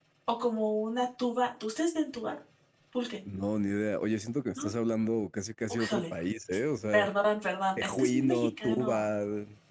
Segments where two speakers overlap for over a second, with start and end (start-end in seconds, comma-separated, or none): 7.8-9.0